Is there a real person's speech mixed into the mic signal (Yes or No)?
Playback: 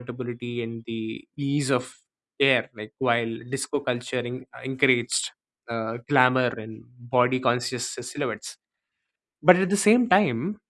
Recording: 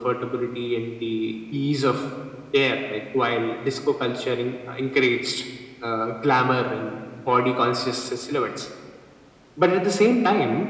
No